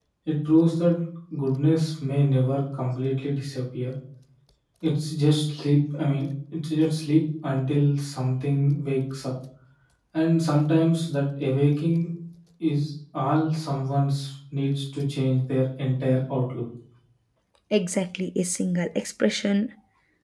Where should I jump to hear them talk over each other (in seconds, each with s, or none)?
none